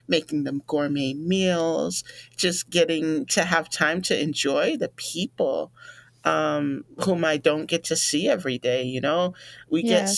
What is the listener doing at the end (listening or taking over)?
listening